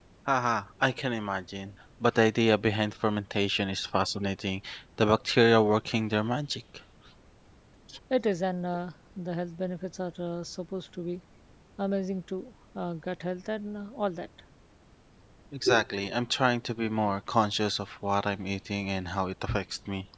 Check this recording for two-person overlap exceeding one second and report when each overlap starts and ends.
none

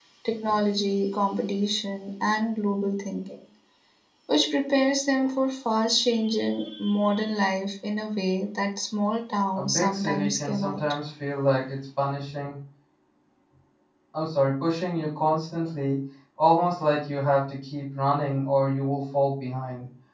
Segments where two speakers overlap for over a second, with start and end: 9.6-10.8

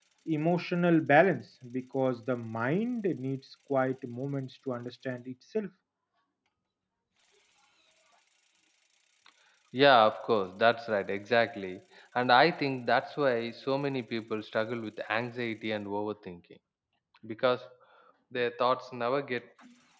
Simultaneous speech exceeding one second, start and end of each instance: none

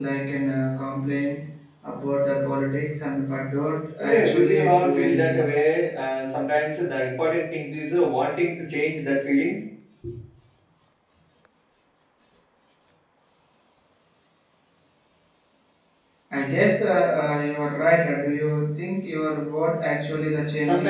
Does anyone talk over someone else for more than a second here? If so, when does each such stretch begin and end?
4.0-5.4

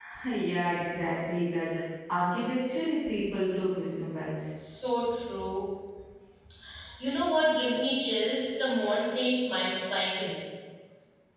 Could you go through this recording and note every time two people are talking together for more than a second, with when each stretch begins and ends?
none

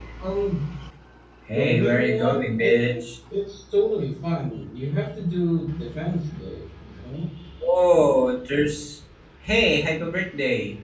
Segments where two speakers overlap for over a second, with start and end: 1.5-2.9

